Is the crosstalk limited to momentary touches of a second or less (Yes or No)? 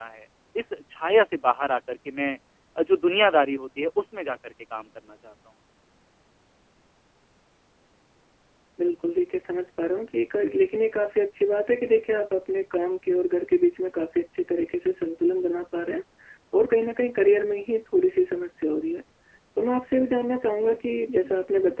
Yes